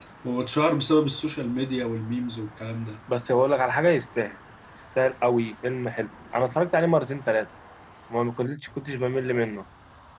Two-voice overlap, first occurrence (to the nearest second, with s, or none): none